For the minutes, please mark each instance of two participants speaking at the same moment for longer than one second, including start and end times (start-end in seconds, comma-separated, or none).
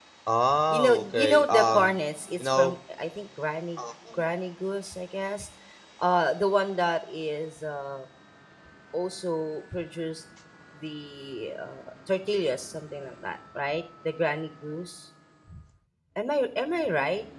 0.7-1.9